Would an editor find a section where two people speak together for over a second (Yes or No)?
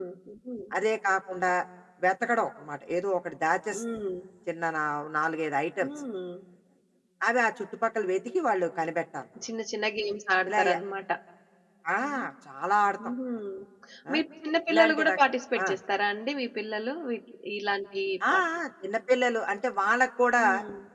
No